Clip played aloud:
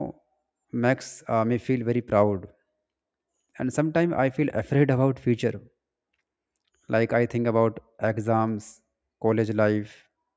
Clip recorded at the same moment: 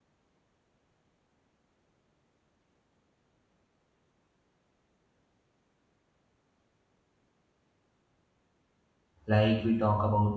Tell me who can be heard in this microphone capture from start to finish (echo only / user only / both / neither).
user only